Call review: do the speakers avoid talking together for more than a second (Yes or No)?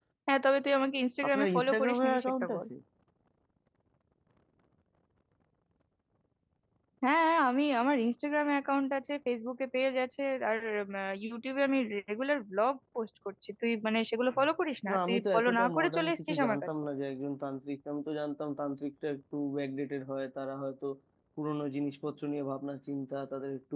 No